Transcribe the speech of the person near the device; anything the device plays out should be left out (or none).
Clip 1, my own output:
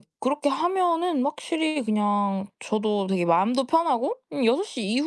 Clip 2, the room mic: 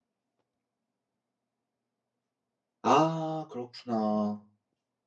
아 그렇구나.